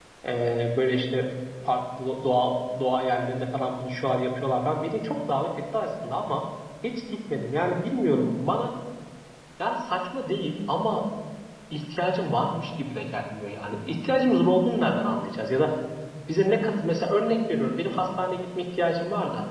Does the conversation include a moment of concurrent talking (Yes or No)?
No